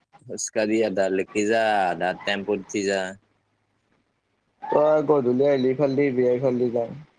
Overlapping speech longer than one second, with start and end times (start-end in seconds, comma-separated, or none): none